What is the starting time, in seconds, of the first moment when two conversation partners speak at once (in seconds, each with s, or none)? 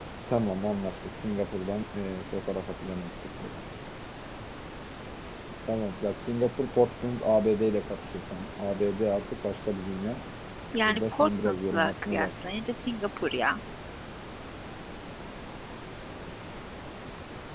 10.9 s